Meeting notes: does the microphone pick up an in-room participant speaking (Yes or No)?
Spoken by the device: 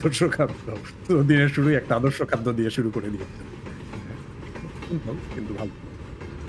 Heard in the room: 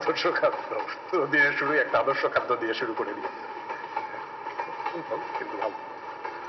No